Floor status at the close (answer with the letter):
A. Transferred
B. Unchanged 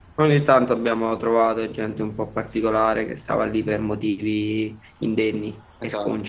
A